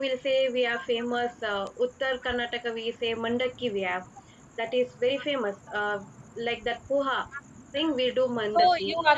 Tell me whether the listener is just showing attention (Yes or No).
No